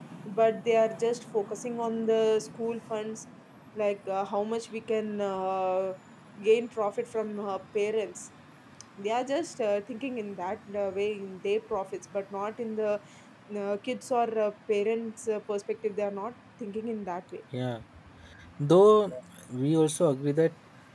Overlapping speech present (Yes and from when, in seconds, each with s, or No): No